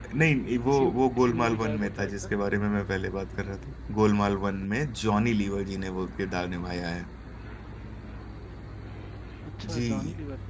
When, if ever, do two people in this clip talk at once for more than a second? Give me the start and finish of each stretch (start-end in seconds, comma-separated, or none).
0.7-2.1